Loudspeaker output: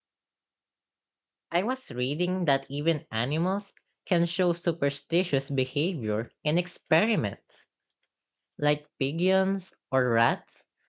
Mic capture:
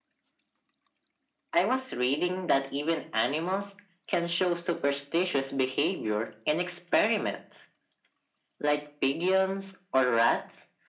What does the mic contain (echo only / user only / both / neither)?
echo only